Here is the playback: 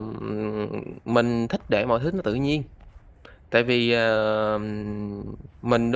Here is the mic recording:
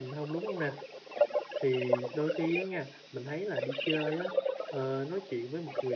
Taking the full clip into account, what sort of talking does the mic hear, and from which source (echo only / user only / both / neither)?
both